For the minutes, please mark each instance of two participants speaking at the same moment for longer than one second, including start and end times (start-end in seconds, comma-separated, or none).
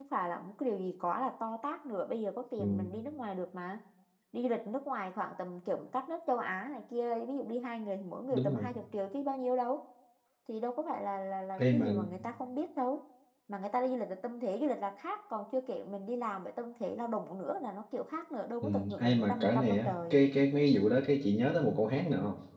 18.6-20.2